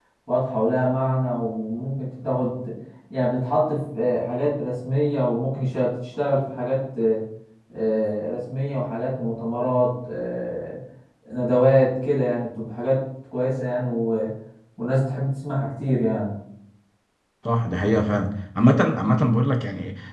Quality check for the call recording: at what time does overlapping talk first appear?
none

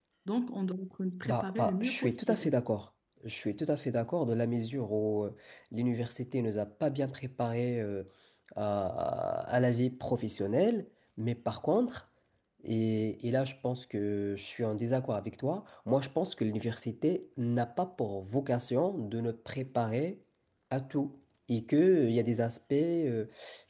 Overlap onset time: 1.2 s

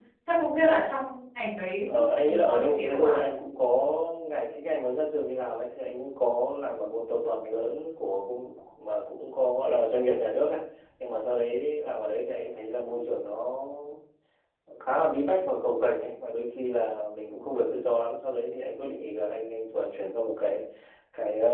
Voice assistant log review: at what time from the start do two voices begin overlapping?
1.9 s

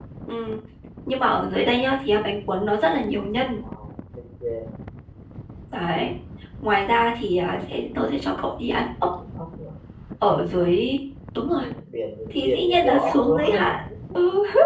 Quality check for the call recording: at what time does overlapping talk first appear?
12.3 s

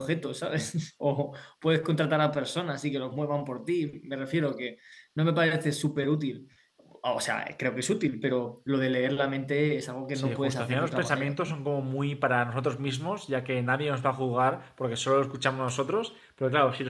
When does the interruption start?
10.2 s

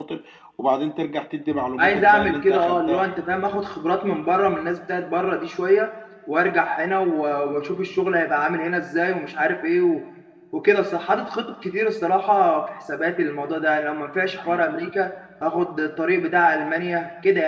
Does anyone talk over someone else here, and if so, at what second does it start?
1.8 s

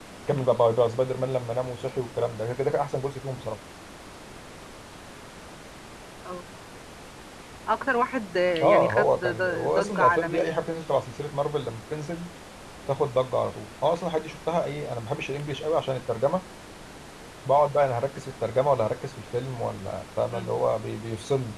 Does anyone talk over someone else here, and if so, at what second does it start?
8.6 s

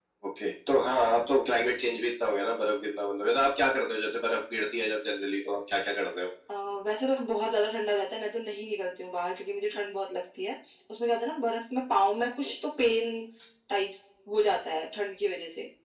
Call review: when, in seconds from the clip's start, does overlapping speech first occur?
none

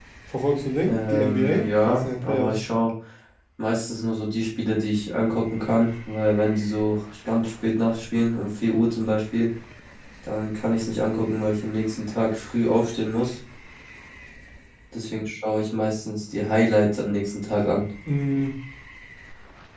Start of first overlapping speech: 0.9 s

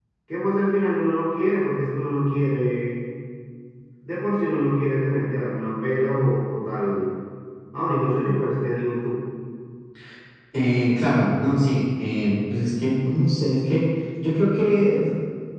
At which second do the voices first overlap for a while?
none

